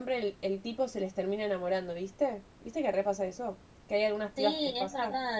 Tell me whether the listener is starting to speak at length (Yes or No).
Yes